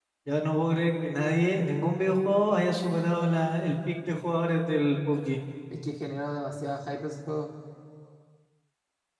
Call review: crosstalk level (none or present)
none